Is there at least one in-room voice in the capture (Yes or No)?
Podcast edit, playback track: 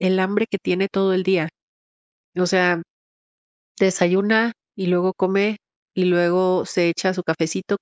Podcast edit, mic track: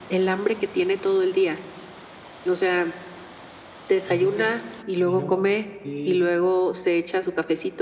Yes